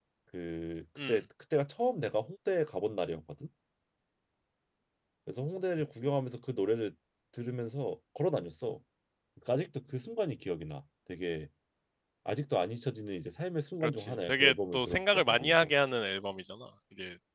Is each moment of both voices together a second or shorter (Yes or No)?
No